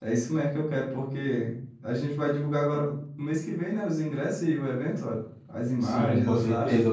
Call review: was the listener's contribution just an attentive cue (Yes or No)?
No